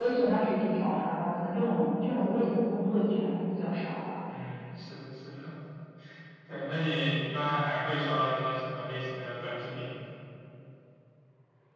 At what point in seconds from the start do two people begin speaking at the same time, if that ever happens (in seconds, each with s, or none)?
none